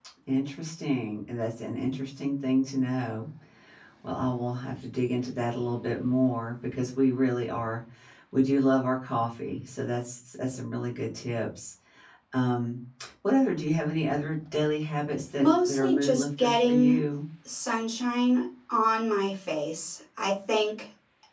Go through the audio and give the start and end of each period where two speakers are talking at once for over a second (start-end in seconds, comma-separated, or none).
15.4-17.0